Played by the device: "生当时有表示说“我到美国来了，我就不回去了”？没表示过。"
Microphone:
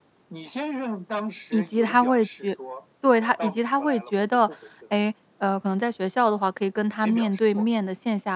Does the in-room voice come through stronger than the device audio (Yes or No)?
Yes